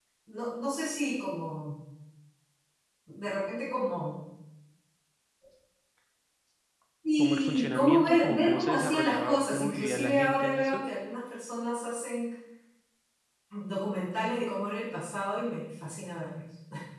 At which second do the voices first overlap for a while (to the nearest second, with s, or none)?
7 s